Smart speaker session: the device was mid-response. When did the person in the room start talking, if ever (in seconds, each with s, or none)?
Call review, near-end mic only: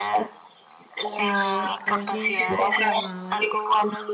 1.2 s